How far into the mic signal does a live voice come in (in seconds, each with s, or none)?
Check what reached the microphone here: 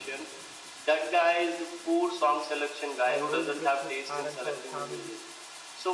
3.0 s